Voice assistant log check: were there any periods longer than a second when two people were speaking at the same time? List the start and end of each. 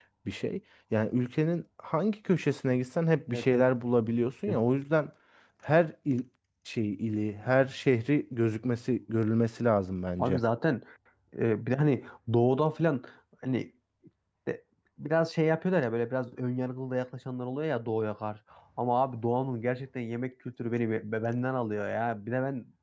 none

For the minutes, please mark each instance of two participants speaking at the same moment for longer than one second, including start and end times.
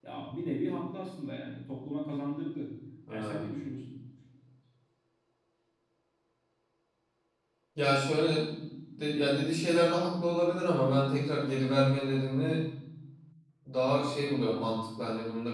none

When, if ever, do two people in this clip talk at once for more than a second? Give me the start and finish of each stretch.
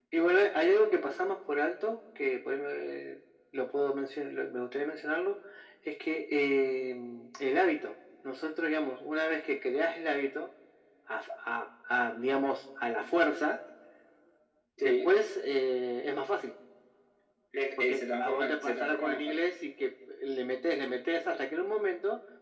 17.8-19.3

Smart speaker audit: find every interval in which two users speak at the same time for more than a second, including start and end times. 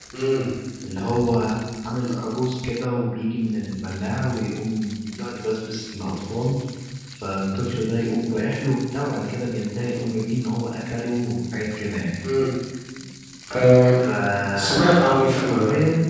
none

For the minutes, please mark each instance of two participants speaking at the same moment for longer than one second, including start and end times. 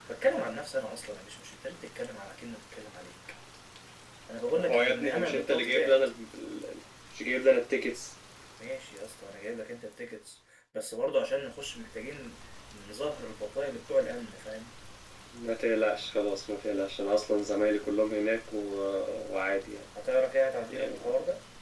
4.5-6.0

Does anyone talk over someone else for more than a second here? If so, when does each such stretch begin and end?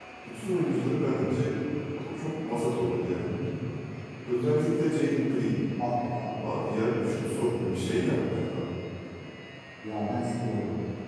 6.9-8.4

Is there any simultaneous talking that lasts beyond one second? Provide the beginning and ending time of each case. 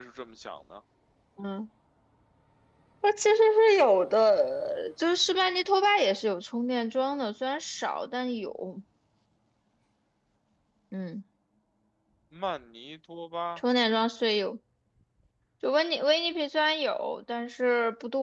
none

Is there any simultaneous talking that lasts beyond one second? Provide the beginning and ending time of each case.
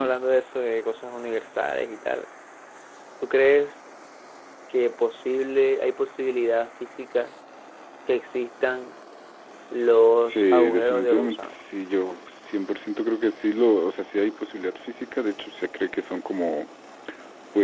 10.2-11.5

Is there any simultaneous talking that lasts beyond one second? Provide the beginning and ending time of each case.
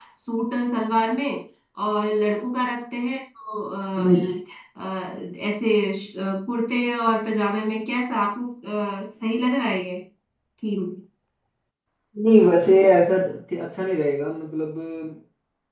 none

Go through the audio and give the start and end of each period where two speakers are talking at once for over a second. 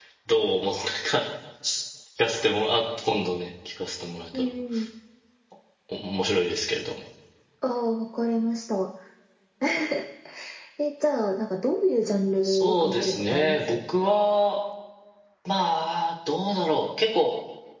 12.4-13.8

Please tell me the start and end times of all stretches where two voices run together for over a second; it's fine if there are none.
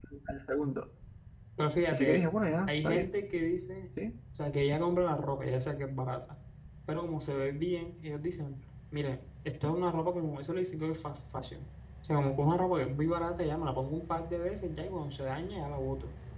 none

